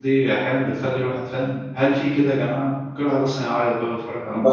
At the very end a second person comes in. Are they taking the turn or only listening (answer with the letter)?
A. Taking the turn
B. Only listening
A